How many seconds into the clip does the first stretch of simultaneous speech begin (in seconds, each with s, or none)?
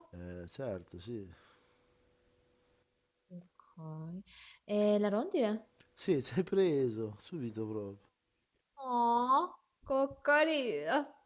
none